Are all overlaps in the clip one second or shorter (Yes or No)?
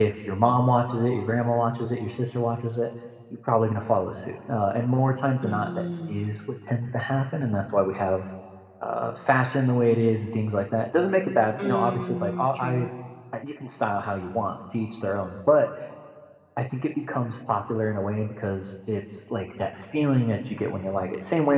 No